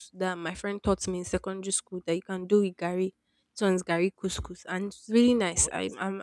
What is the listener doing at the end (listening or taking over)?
listening